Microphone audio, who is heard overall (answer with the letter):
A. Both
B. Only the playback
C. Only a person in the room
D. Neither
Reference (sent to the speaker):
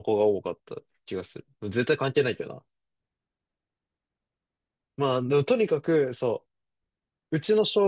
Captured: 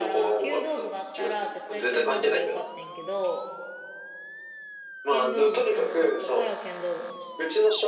A